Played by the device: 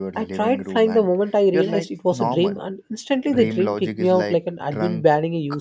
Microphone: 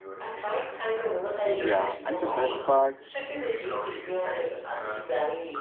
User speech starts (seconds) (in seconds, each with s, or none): 1.4 s